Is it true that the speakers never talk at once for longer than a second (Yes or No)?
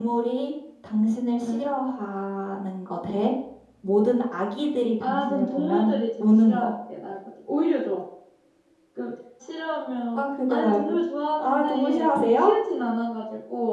No